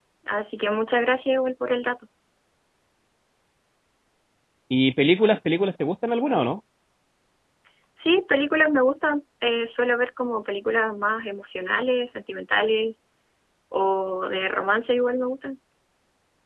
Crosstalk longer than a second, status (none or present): none